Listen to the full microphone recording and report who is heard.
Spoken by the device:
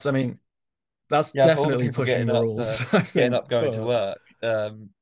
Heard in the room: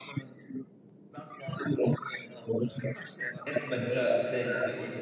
both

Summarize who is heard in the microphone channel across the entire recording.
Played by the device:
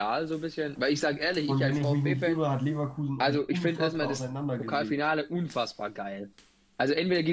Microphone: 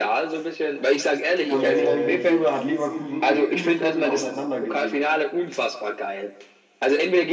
both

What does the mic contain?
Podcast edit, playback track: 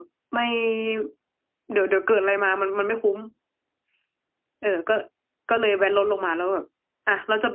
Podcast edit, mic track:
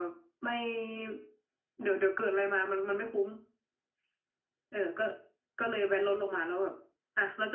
echo only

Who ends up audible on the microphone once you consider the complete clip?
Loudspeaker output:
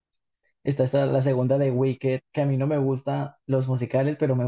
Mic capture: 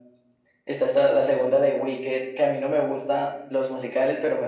echo only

